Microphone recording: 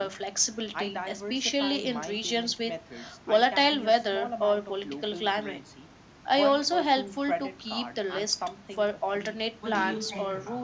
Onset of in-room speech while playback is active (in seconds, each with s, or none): 9.6 s